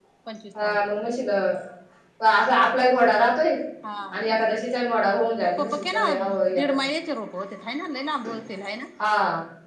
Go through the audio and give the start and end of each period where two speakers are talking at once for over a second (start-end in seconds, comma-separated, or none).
5.4-6.7